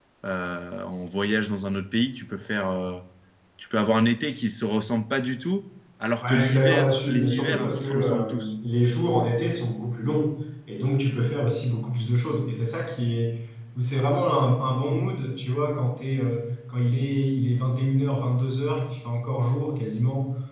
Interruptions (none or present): present